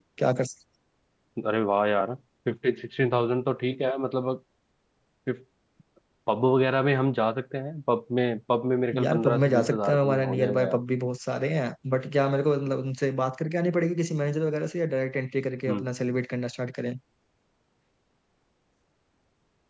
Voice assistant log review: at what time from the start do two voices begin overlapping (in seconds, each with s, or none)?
8.9 s